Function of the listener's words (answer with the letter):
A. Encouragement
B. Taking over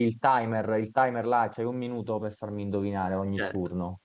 B